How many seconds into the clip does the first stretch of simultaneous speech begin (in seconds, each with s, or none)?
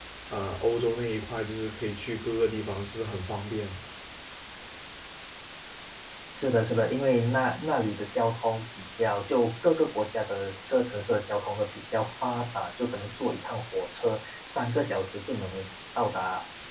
none